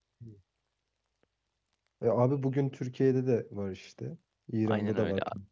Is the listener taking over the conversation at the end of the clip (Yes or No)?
Yes